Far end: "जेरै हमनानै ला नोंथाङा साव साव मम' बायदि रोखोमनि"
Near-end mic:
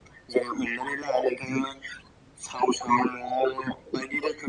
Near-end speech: none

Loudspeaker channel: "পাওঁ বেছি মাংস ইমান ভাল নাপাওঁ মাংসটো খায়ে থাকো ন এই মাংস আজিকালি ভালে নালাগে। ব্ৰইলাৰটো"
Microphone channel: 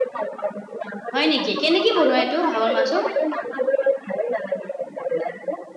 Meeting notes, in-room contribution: present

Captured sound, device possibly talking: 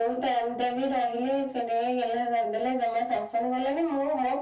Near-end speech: none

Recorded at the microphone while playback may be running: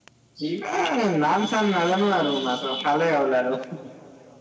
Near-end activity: present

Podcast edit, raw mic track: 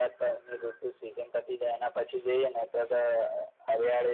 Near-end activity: none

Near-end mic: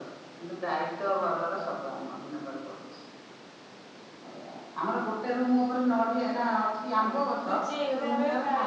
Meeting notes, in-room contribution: present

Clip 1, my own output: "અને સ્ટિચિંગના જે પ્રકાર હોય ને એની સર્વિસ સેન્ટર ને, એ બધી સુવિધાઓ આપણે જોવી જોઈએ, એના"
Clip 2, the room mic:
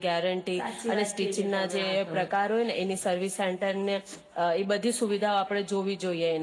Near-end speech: present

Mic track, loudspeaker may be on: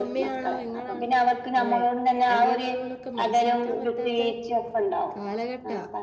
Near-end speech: present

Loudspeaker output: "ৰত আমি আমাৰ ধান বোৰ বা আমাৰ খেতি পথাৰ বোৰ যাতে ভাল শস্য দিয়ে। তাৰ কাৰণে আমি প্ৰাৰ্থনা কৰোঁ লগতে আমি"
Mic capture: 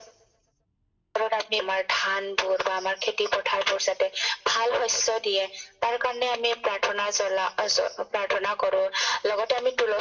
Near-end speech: none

